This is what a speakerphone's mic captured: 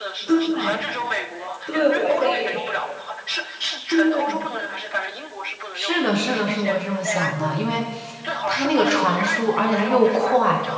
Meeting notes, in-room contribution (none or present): present